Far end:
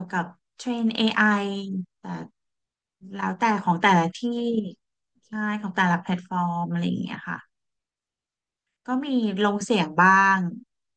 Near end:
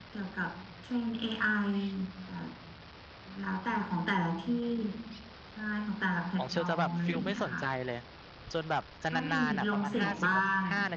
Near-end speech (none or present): present